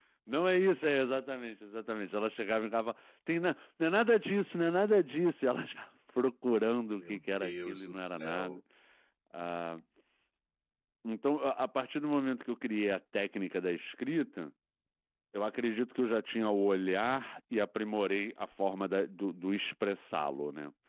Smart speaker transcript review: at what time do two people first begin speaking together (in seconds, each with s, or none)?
7.0 s